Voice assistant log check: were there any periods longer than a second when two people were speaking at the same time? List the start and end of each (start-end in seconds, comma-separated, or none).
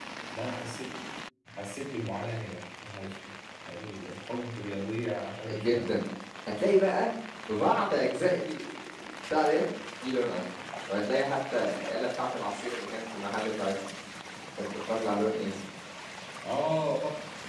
none